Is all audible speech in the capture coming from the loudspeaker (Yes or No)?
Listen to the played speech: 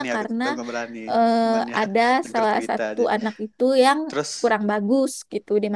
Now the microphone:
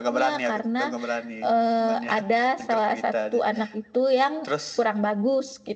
Yes